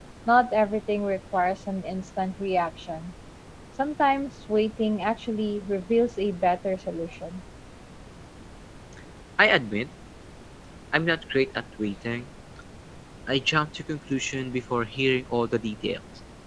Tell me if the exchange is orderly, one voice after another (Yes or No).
Yes